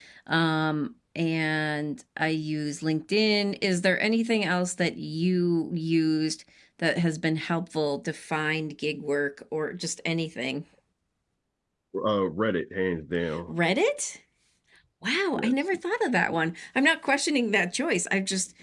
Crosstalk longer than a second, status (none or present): none